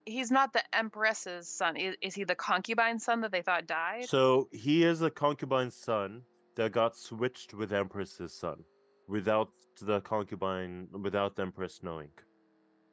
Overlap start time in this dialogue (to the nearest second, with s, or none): none